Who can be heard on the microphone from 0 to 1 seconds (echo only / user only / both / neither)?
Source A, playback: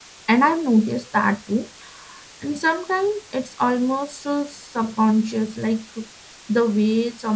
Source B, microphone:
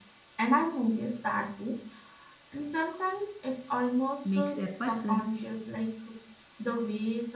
echo only